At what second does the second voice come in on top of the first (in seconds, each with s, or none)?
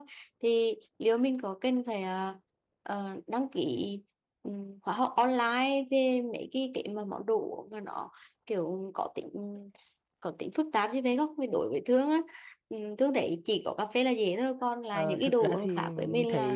14.9 s